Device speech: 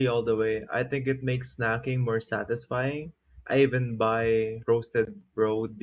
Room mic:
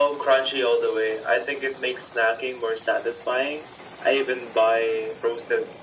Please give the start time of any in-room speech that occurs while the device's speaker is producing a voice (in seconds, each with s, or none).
none